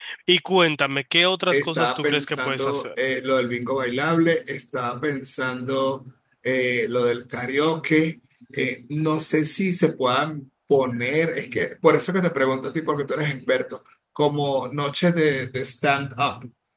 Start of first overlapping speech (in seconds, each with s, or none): 1.5 s